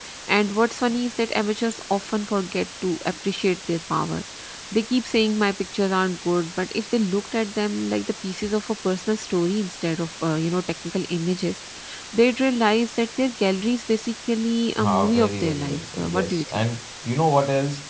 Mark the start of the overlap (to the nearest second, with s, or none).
15 s